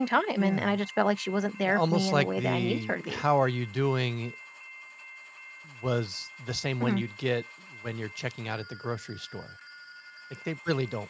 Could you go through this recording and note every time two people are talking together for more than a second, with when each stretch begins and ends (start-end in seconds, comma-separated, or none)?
1.6-3.2